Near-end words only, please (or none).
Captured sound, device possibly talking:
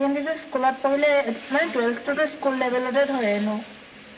none